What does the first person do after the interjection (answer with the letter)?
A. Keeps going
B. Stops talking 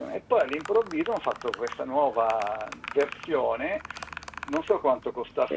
A